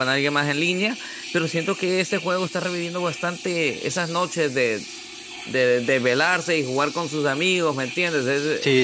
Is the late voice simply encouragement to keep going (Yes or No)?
No